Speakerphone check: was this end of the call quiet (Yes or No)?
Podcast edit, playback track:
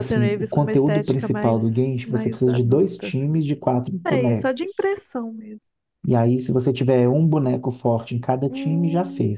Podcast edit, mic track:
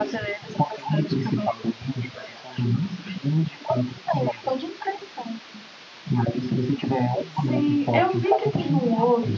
No